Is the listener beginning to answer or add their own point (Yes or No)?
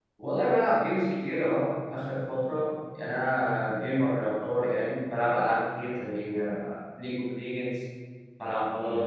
No